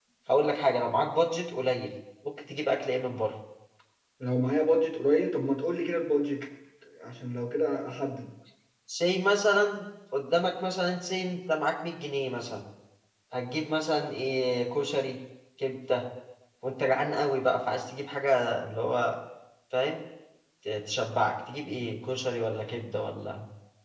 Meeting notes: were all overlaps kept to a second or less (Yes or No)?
Yes